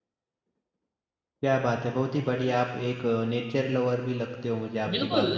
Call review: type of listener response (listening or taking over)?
taking over